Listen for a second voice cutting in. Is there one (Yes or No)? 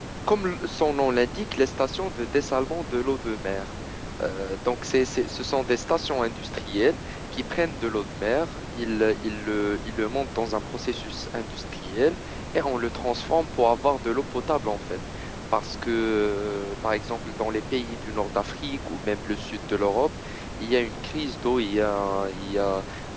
No